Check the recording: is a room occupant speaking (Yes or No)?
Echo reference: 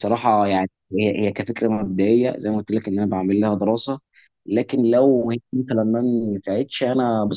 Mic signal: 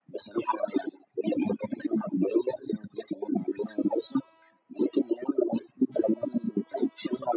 No